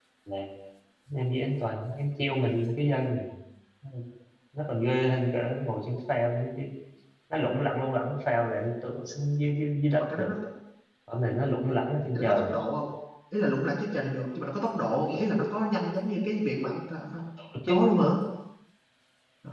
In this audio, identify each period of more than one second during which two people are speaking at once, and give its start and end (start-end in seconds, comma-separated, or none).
none